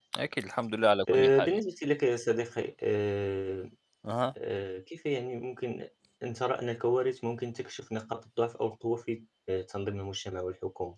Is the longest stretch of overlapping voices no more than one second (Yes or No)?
Yes